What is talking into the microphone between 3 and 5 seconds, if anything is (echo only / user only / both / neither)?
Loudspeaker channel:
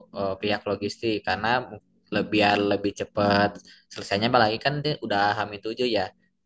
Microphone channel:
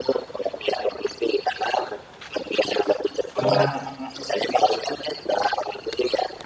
both